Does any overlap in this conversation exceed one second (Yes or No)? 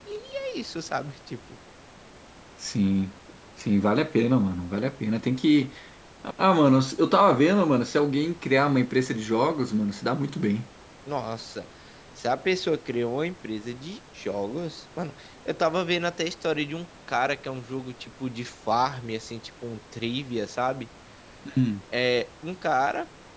No